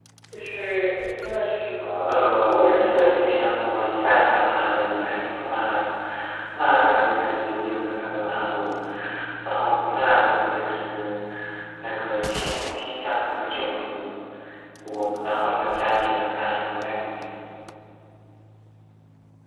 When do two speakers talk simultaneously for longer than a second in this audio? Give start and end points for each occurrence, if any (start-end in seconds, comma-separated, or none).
2.0-3.4